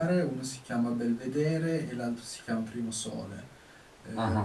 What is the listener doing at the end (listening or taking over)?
taking over